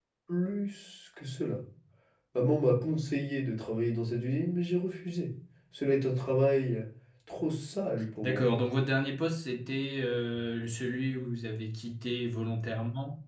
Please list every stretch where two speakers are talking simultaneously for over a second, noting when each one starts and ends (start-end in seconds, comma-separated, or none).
none